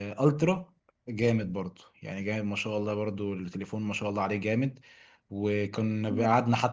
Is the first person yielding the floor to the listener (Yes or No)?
No